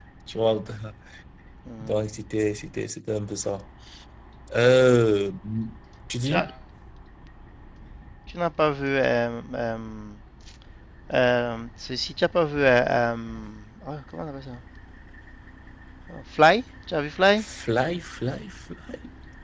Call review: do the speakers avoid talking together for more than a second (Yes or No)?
Yes